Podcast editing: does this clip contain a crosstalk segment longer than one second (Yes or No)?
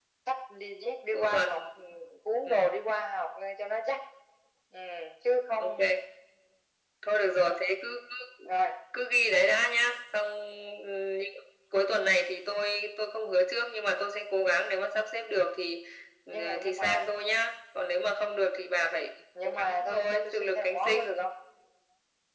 Yes